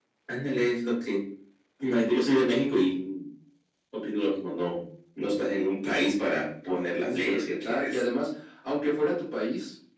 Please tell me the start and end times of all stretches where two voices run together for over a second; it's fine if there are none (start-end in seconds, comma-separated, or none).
6.7-8.0